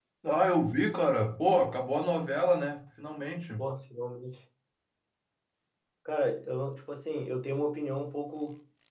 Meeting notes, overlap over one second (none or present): none